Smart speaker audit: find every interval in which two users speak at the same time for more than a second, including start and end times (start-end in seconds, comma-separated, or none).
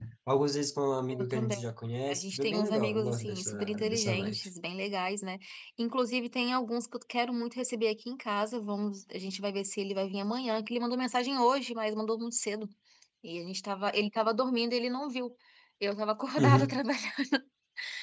2.1-4.4